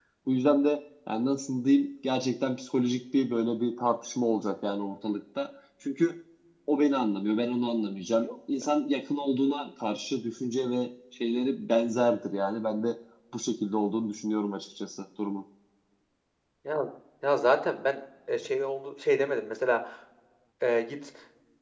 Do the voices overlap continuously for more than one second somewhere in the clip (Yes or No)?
No